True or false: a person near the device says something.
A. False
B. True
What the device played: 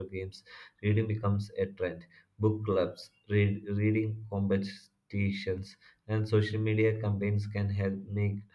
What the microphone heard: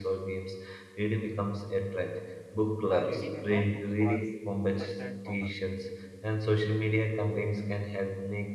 B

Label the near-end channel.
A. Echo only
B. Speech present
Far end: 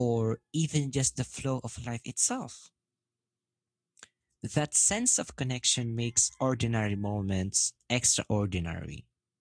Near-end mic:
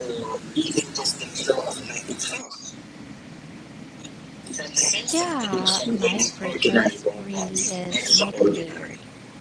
B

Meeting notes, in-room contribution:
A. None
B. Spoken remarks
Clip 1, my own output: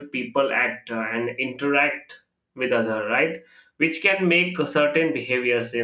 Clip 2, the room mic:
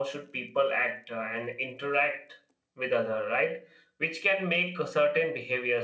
A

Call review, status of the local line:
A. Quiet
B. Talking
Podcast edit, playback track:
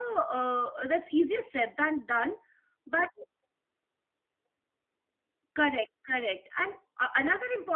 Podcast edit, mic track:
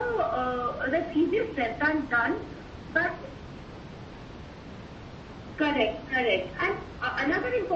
A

